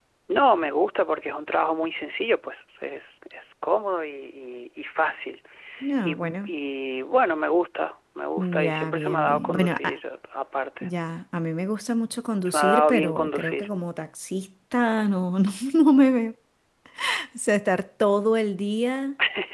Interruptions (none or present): present